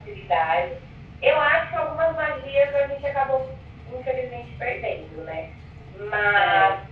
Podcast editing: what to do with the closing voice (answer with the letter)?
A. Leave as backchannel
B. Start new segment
A